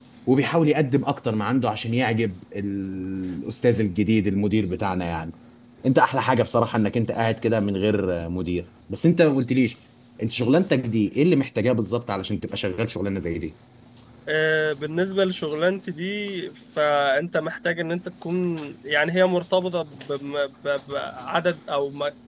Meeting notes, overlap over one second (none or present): none